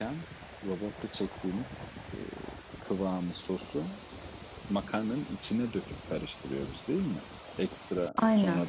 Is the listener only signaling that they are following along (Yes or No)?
Yes